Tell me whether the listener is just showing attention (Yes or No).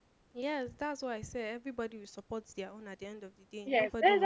No